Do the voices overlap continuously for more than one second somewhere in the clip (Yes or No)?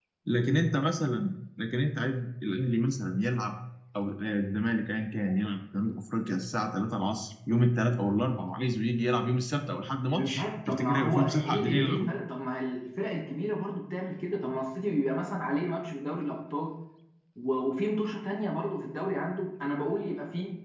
Yes